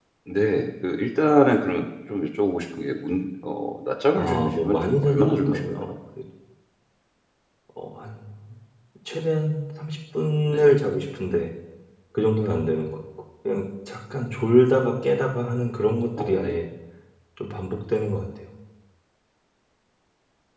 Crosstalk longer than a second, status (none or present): present